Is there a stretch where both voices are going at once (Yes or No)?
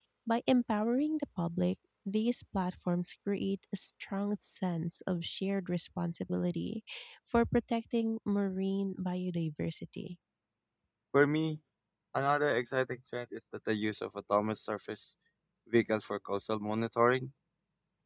No